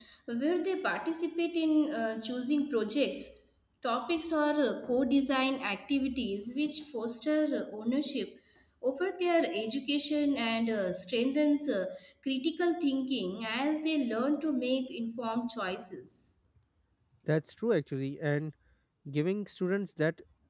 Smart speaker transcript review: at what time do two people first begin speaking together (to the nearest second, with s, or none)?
none